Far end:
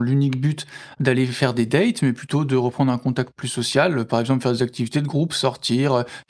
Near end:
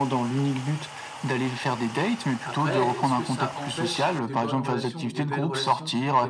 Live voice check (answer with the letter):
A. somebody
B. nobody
A